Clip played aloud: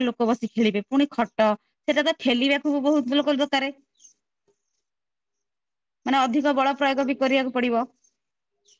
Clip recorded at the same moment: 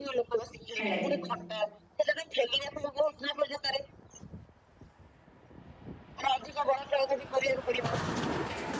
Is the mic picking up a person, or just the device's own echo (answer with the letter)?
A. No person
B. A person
B